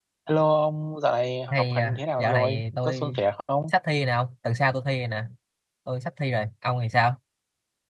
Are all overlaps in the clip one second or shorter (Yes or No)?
No